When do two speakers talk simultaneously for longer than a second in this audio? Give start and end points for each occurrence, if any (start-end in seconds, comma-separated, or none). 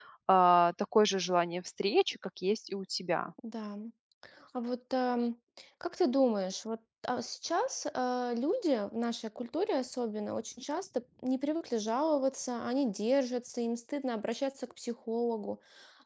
none